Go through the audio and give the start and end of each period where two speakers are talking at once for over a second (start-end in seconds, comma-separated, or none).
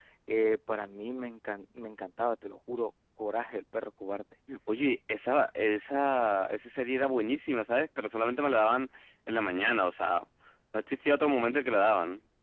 none